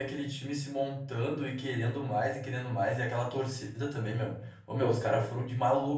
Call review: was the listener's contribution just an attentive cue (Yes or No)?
Yes